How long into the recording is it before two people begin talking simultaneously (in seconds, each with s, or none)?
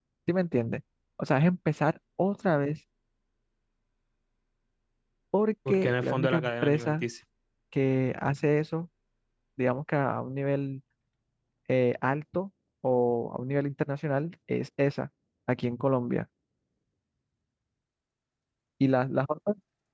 5.7 s